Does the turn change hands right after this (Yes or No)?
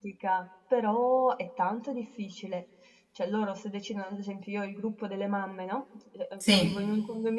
No